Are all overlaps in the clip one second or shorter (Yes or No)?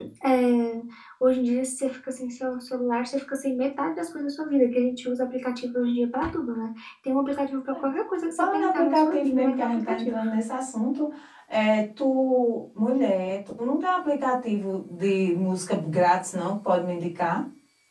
No